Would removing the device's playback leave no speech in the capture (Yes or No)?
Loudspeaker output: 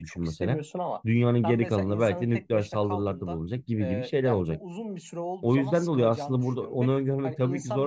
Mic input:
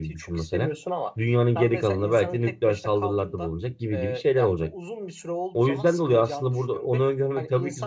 Yes